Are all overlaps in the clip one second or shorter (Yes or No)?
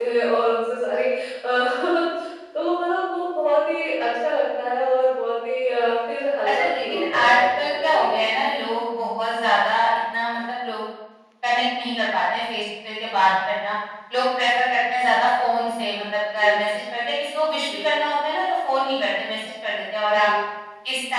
No